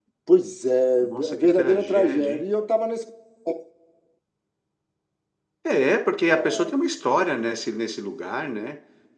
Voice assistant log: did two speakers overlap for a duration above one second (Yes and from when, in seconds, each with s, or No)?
Yes, from 1.0 s